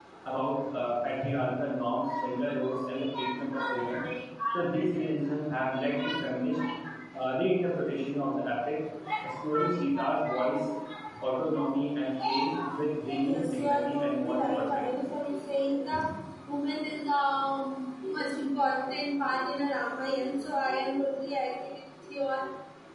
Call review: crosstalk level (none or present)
present